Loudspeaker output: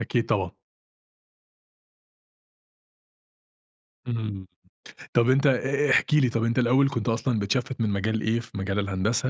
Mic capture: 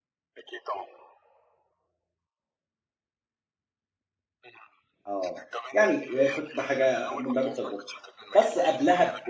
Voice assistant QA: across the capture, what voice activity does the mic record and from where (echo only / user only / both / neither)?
both